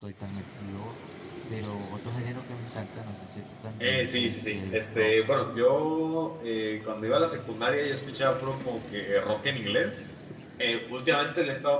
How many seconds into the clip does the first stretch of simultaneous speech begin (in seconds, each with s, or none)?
3.8 s